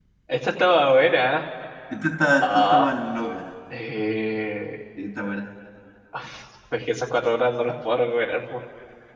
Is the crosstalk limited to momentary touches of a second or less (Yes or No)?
Yes